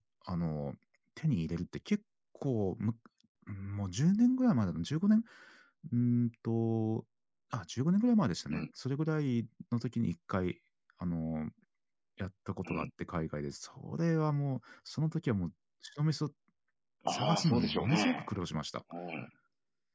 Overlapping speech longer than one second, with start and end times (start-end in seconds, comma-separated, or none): 17.1-18.3